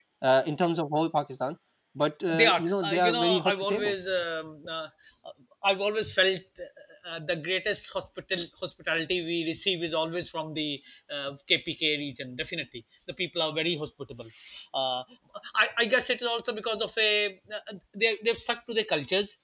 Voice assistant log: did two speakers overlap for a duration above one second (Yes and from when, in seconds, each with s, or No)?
Yes, from 2.3 s